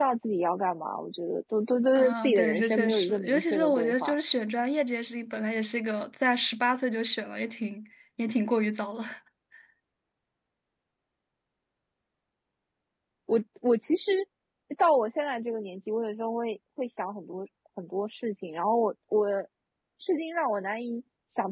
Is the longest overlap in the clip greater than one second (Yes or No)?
Yes